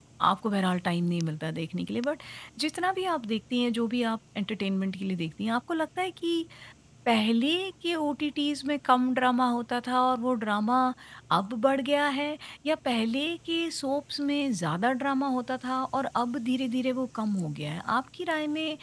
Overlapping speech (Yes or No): No